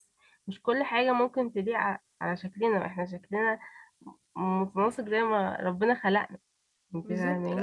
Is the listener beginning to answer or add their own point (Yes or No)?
Yes